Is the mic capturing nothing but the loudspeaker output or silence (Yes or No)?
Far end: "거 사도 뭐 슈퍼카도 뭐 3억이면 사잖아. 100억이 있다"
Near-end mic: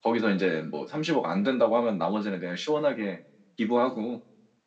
No